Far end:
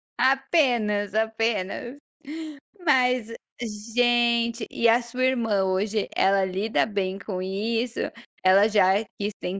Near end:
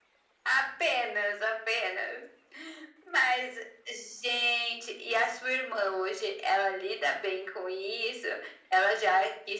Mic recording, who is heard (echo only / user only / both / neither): echo only